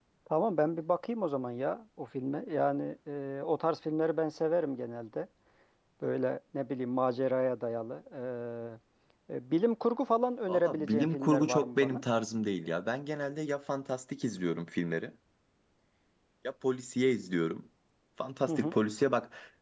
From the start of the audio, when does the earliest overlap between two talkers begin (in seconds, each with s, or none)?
10.5 s